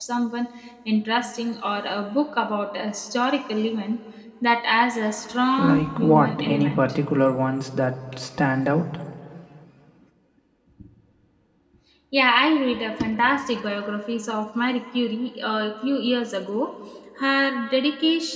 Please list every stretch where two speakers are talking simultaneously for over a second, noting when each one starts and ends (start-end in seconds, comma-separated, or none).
5.6-6.8